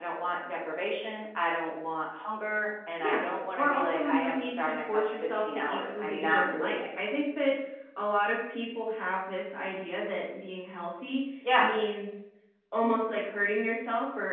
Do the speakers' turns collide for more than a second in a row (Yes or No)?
Yes